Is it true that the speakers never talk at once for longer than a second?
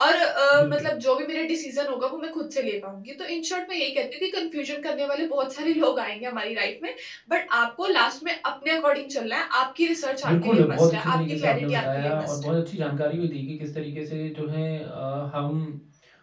No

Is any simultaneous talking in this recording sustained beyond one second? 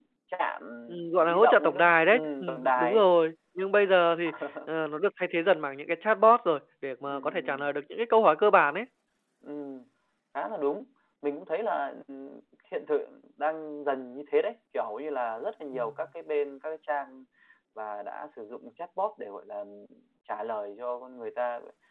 Yes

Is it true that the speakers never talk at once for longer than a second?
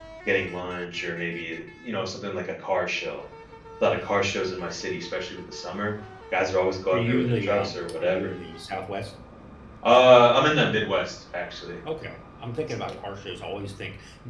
No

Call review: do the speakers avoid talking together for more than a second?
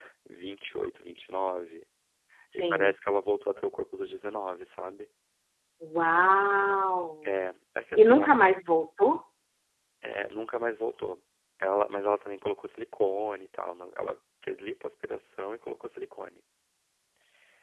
Yes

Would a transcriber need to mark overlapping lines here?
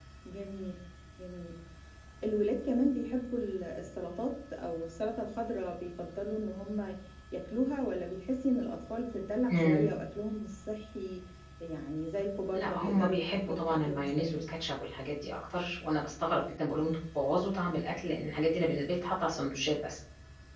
Yes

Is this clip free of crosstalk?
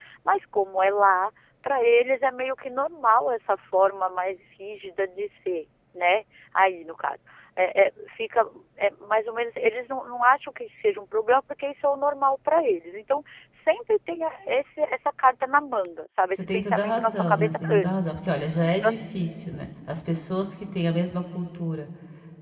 No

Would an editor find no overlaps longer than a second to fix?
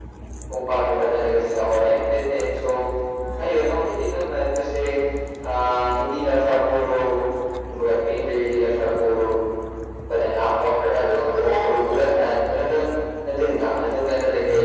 No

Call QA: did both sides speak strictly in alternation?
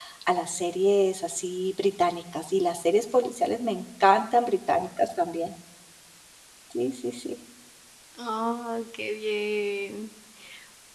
Yes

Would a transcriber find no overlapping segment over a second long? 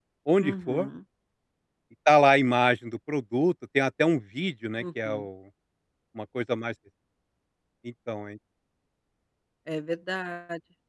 Yes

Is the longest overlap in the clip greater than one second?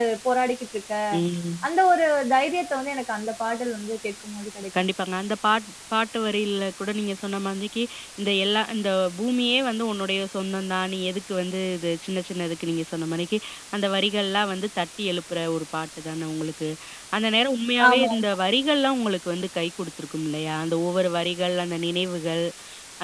No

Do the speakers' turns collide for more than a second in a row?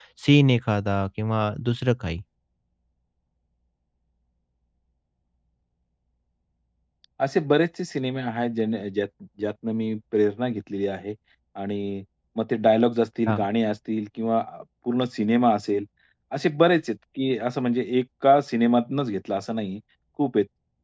No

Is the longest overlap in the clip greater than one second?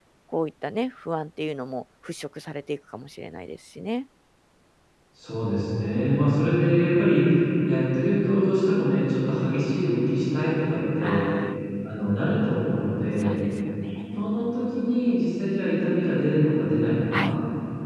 No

